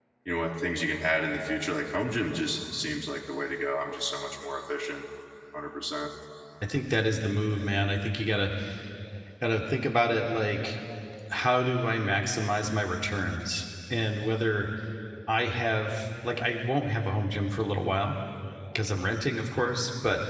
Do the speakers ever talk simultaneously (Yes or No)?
No